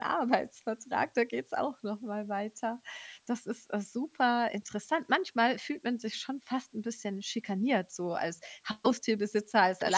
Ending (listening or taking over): listening